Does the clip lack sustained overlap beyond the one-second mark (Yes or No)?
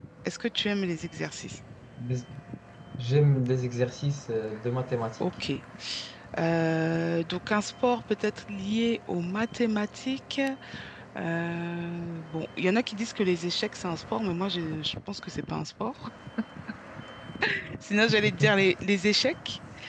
Yes